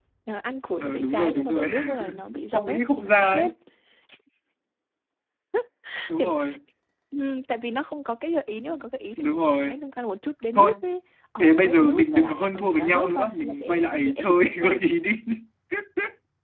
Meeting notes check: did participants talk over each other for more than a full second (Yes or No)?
Yes